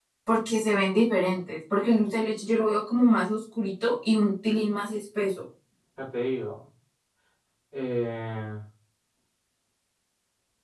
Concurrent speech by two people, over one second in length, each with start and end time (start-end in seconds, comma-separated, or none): none